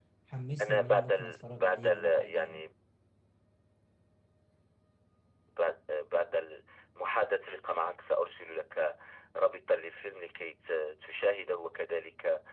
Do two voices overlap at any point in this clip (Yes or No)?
Yes